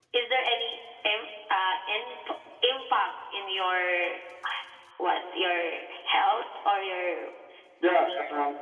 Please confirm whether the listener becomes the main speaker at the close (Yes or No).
Yes